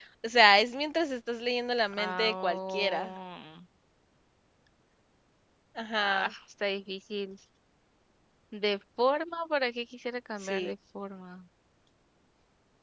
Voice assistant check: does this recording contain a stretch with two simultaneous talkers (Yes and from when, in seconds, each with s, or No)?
Yes, from 2.0 s